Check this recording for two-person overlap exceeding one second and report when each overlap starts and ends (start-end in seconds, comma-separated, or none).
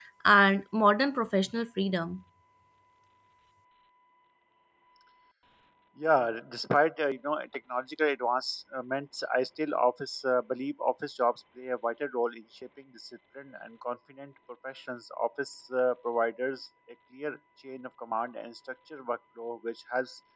none